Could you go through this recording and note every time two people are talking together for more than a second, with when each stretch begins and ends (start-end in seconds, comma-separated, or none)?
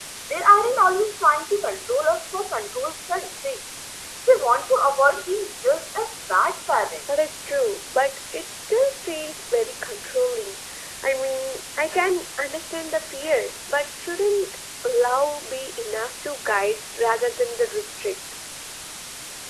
none